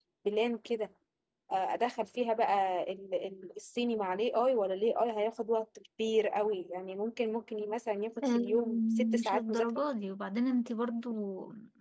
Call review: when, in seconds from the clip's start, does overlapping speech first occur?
8.2 s

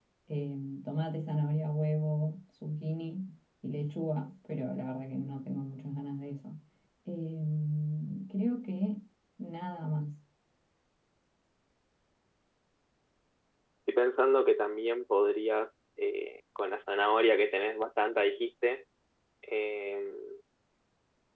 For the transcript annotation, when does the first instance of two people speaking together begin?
none

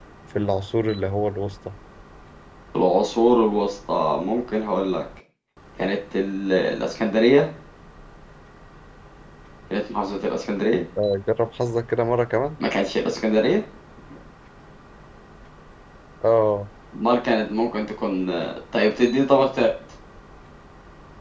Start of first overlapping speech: none

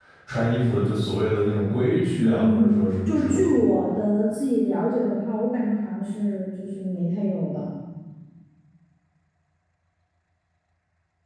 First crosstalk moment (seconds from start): 2.2 s

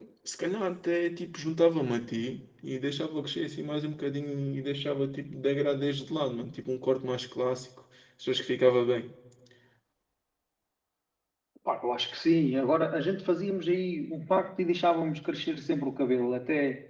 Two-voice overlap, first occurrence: none

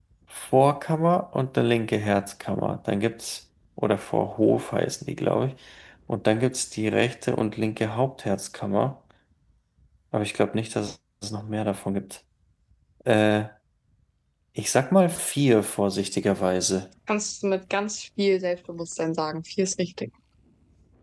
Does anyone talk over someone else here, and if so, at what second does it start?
none

